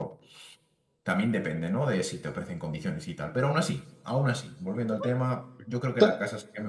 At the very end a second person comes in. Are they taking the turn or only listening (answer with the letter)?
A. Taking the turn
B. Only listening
B